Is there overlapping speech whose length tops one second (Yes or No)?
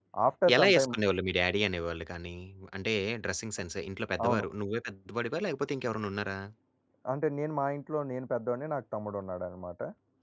No